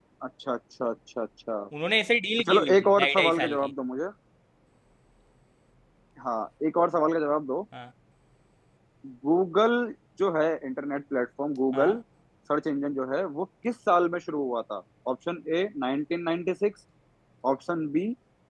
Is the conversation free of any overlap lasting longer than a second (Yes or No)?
No